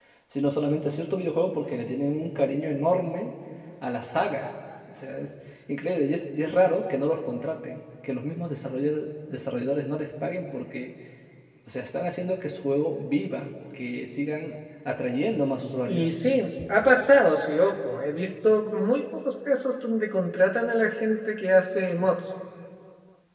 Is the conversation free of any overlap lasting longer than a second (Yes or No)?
Yes